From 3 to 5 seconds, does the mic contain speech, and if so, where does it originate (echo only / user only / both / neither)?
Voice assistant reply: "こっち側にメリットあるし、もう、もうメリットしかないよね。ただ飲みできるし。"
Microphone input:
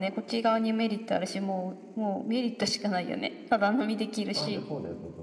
both